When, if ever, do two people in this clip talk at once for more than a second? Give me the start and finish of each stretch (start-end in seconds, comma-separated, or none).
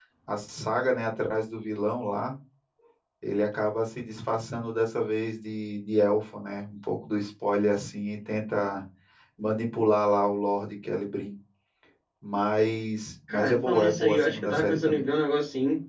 13.3-15.1